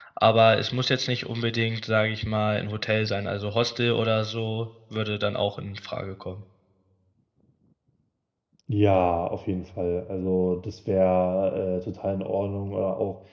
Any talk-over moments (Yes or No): No